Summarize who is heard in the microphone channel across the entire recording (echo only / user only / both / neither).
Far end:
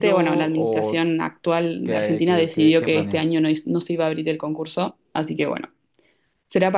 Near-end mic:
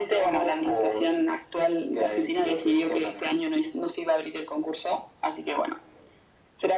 echo only